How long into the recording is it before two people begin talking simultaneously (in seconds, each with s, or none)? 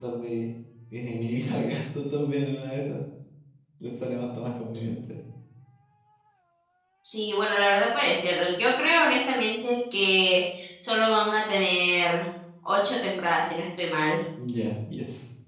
none